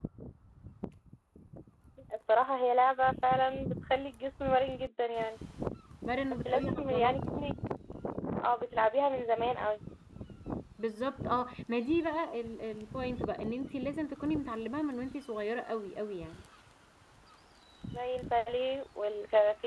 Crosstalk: present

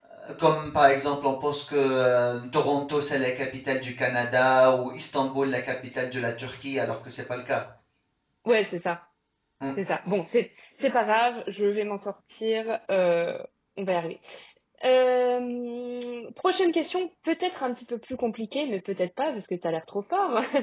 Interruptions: none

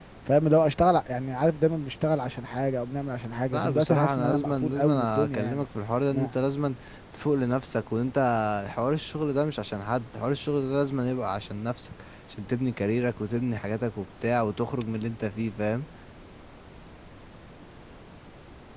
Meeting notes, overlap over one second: present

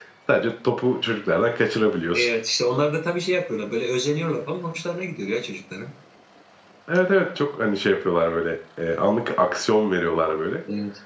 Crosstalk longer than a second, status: none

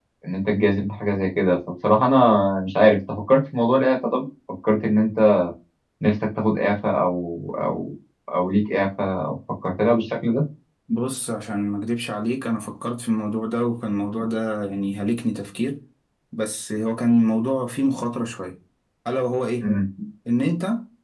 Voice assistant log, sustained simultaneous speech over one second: none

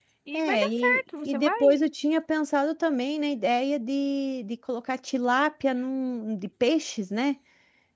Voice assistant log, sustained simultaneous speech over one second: present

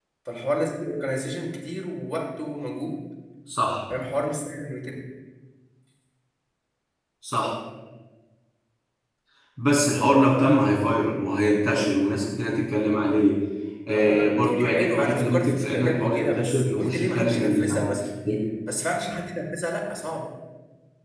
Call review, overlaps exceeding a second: present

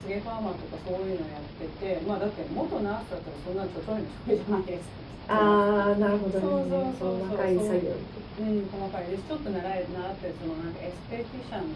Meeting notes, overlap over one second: present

